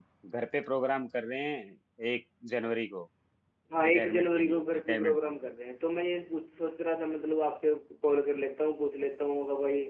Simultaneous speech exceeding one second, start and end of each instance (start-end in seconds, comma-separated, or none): 3.8-5.3